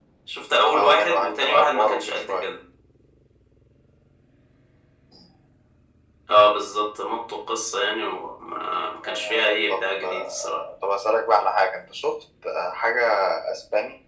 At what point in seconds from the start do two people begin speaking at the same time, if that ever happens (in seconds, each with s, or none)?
0.7 s